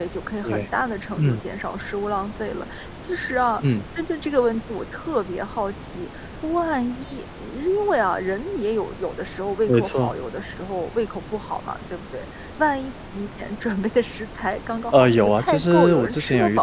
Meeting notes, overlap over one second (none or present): present